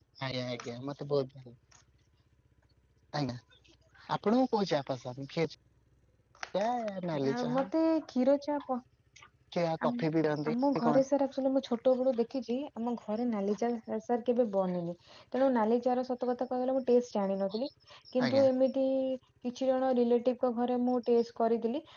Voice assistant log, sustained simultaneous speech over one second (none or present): none